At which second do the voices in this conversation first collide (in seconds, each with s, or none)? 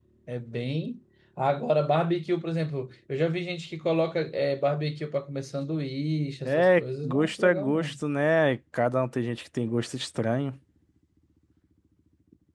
6.5 s